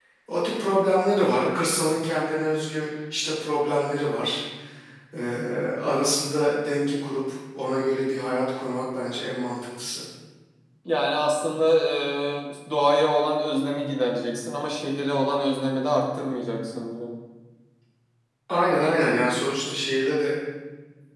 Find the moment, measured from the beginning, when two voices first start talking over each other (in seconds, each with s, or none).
none